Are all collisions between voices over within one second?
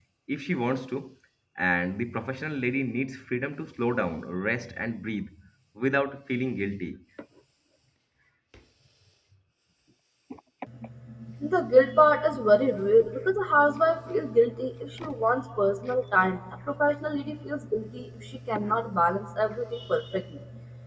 Yes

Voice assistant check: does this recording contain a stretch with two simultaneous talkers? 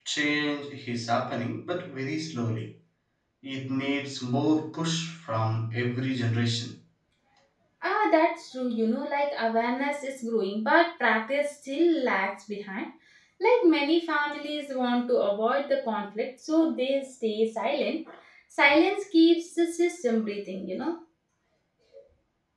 No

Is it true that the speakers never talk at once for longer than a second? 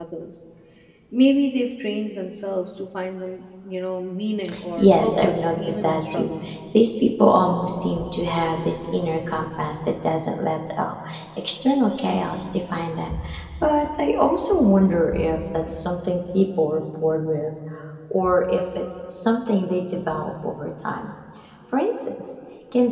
No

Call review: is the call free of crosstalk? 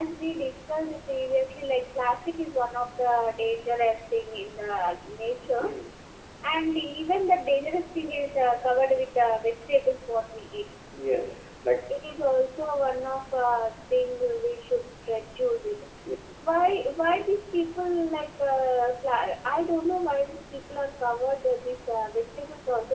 Yes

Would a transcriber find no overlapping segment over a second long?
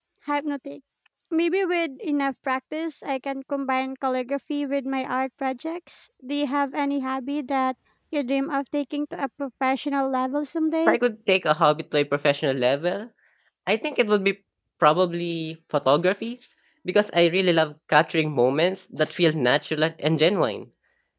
Yes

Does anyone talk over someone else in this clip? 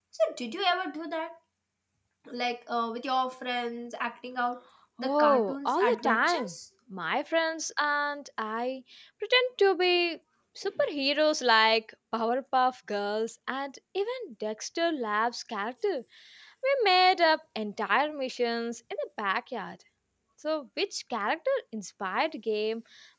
Yes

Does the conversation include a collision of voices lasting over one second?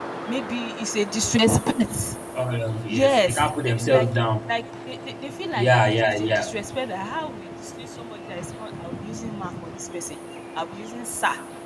Yes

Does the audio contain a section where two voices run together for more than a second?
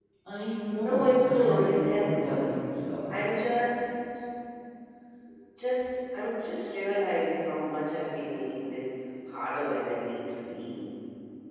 Yes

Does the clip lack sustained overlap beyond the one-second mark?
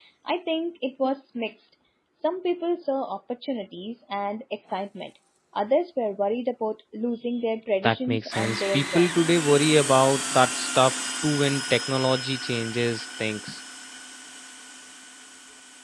No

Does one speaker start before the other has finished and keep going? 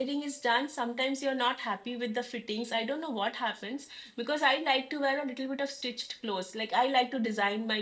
No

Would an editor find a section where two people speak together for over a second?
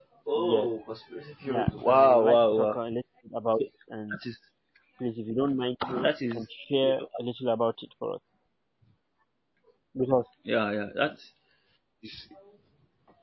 Yes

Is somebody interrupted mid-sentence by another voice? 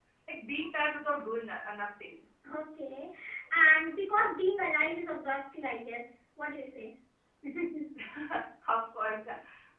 No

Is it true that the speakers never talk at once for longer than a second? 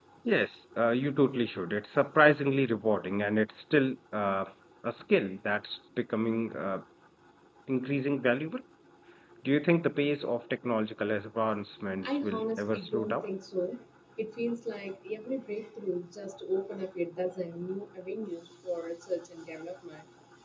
No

